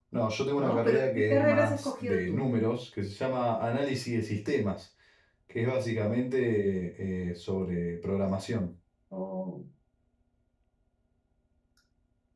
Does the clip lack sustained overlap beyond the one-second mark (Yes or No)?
No